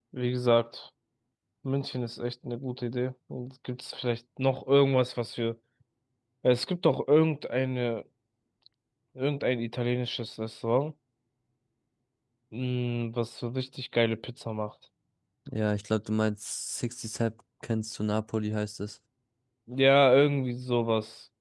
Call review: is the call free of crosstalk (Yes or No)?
Yes